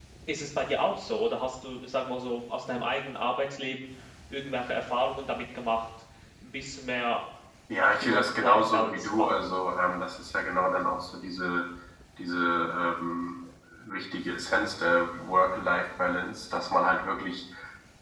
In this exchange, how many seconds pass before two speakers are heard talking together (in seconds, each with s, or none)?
7.8 s